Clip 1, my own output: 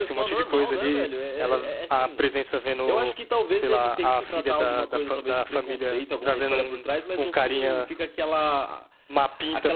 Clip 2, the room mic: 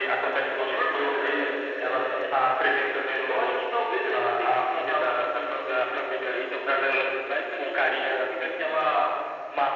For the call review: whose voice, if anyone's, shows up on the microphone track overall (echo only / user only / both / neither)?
echo only